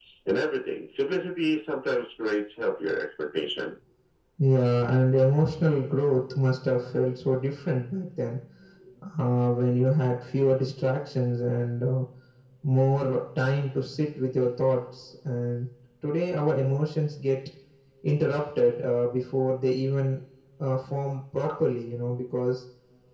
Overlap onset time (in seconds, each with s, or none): none